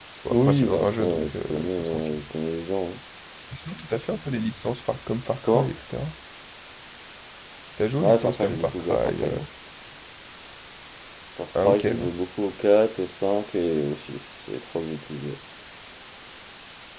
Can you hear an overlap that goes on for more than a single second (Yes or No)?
Yes